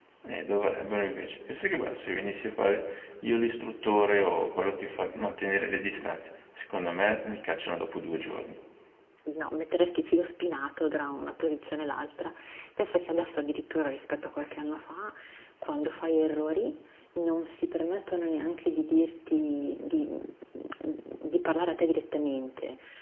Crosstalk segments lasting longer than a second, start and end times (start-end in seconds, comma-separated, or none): none